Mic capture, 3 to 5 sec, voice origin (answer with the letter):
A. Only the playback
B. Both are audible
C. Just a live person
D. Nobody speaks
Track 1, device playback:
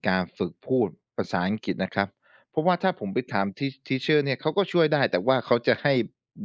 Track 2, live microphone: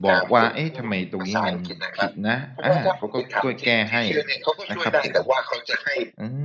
B